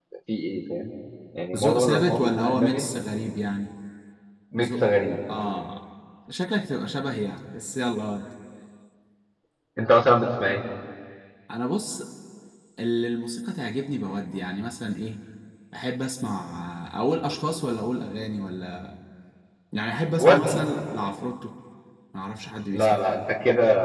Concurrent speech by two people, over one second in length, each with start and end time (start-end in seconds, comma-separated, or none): 1.6-2.8